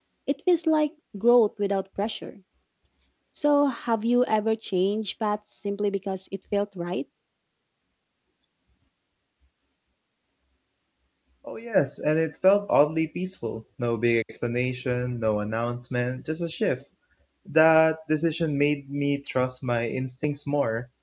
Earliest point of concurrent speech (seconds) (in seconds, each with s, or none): none